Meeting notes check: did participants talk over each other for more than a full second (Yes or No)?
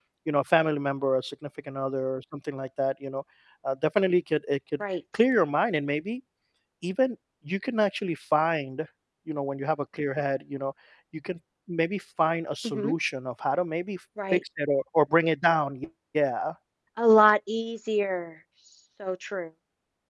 No